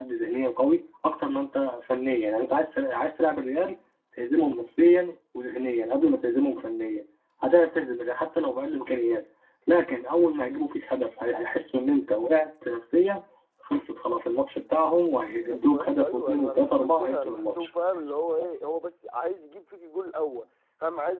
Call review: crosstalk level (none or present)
present